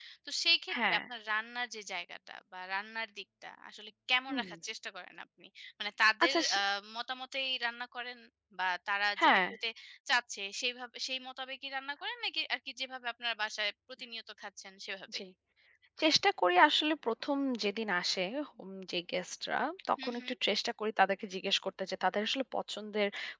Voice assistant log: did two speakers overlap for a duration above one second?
No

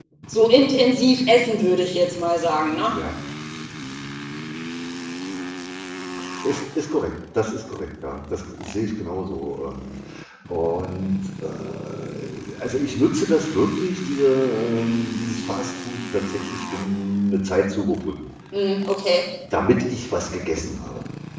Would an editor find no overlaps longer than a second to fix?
Yes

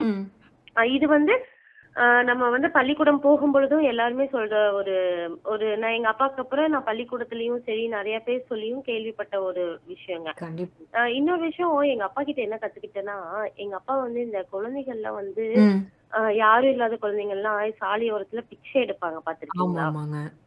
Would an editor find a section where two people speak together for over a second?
No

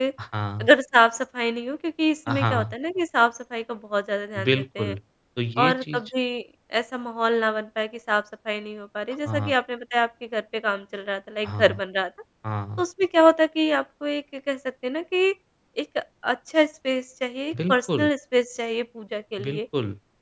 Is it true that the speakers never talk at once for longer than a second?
Yes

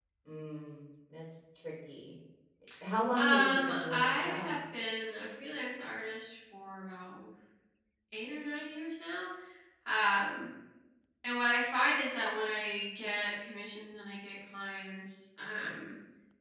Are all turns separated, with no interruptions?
No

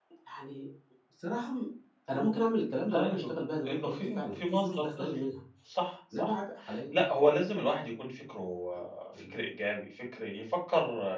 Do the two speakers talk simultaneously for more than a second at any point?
Yes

